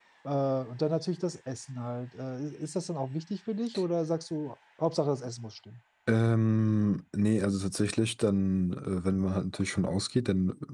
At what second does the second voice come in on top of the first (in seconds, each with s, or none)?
none